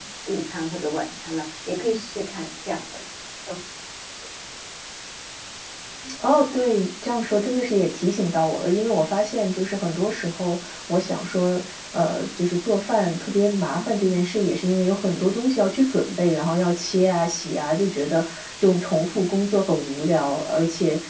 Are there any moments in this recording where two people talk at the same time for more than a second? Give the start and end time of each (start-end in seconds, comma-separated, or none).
none